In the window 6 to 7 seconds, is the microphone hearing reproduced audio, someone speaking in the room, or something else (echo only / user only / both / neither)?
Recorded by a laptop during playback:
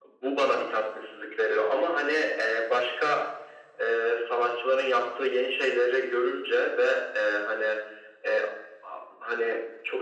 echo only